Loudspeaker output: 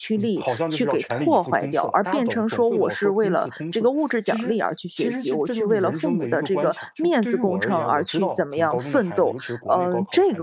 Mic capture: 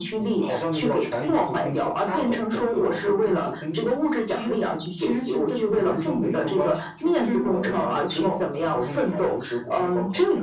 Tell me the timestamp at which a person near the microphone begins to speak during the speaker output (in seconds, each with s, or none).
none